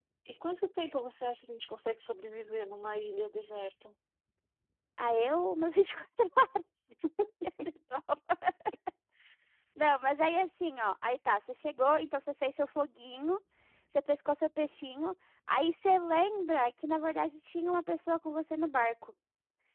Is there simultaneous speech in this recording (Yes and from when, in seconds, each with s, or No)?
No